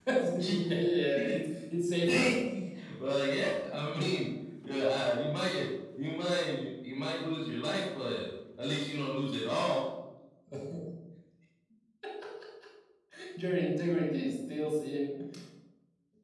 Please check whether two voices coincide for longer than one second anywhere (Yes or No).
No